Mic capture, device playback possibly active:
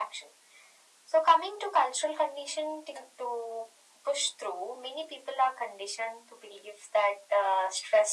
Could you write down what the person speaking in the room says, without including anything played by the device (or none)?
none